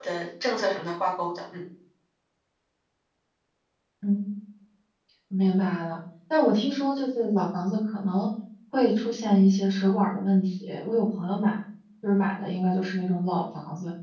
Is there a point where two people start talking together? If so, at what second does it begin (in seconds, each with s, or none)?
none